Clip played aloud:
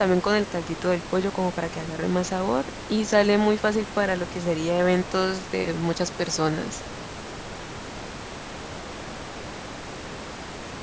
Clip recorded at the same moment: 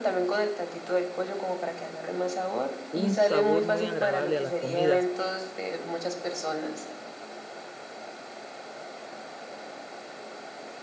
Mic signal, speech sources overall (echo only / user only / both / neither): both